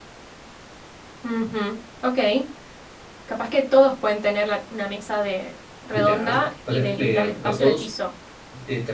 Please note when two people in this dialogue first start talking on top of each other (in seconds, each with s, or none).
5.9 s